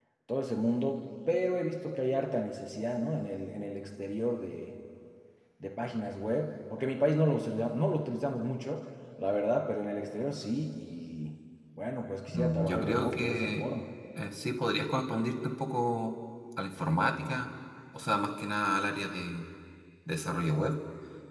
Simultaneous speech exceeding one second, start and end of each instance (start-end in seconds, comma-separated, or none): 12.3-13.6